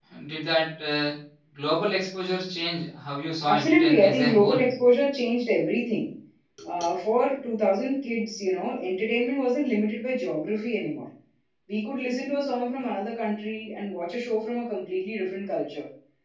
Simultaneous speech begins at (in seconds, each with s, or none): 3.5 s